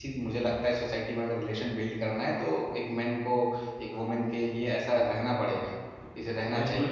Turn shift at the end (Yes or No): Yes